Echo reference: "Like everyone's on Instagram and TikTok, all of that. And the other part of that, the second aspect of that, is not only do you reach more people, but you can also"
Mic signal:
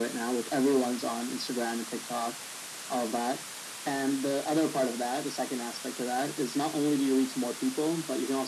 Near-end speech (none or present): none